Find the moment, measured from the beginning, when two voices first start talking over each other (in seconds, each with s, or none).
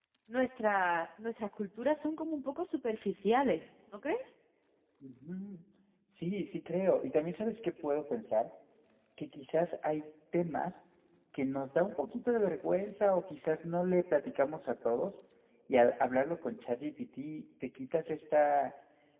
none